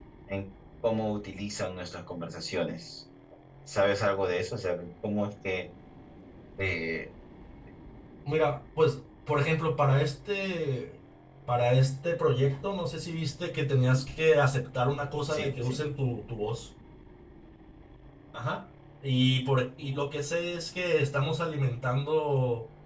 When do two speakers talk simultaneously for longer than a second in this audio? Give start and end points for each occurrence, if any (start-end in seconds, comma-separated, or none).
none